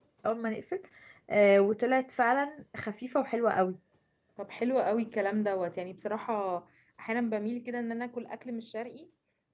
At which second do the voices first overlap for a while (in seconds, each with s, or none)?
none